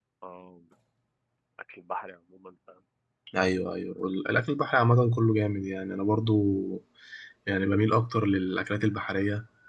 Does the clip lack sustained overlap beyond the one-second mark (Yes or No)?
Yes